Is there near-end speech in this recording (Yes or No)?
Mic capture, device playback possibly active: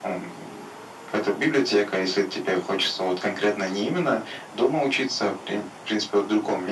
No